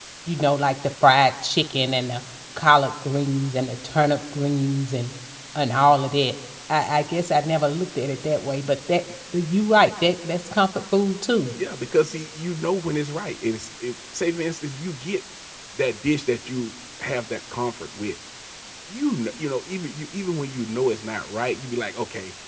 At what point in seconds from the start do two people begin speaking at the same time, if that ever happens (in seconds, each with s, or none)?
none